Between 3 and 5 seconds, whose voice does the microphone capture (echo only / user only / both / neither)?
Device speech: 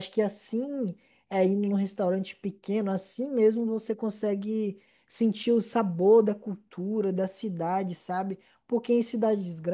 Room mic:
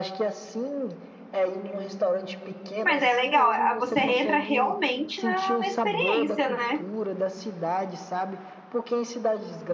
both